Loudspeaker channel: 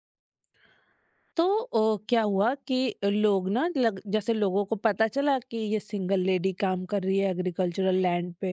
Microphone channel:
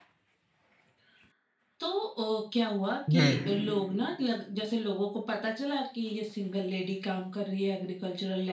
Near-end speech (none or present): present